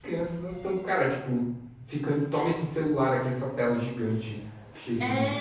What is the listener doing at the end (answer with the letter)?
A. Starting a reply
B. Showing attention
A